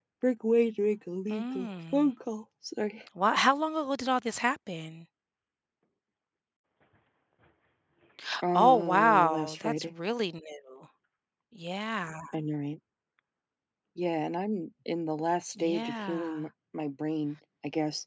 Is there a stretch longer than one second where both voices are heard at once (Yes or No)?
Yes